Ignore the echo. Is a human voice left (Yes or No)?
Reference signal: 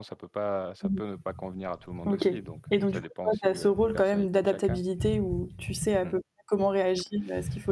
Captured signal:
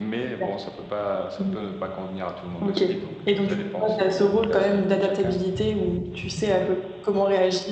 No